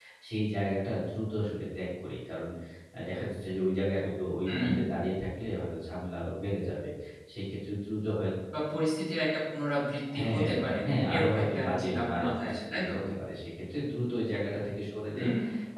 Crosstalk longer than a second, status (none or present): present